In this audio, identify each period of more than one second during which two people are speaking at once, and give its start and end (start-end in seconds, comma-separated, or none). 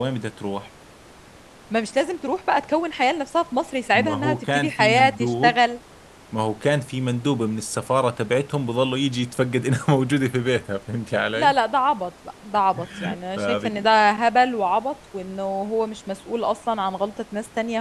3.9-5.6